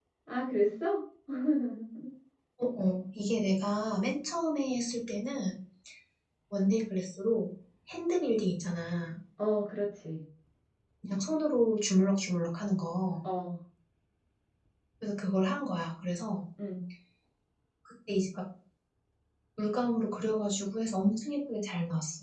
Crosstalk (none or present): none